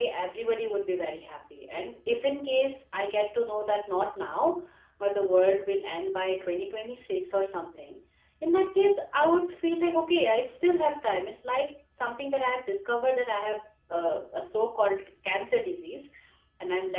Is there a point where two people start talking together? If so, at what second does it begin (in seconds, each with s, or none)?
none